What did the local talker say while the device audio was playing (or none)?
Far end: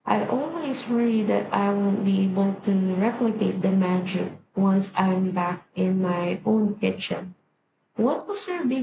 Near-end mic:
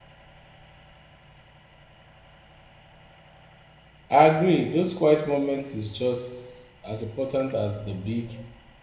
I agree. Those quiet moments is just as important as the big